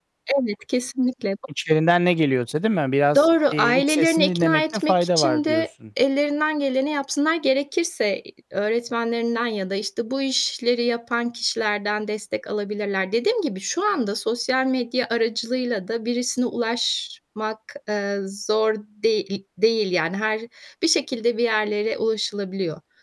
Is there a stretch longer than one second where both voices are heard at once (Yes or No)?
Yes